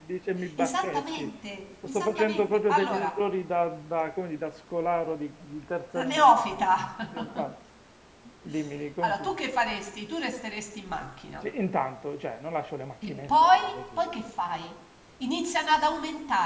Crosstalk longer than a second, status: present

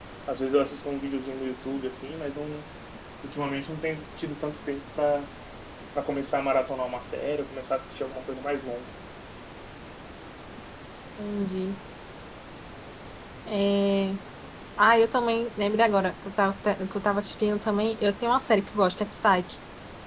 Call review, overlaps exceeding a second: none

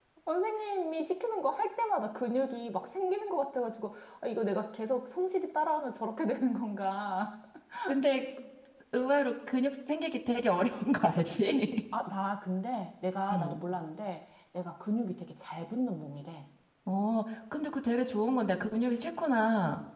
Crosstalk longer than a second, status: none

